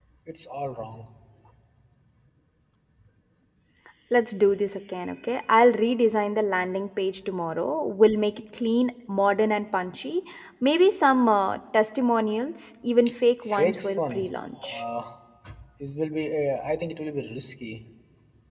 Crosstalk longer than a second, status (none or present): present